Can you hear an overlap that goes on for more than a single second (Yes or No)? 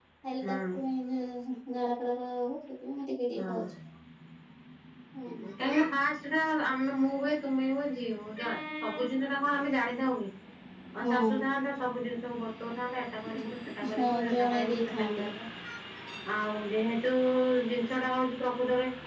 Yes